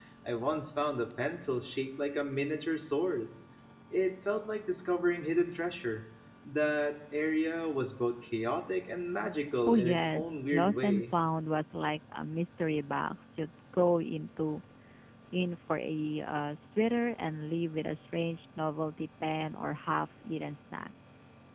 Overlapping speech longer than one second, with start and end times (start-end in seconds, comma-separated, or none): 9.7-11.1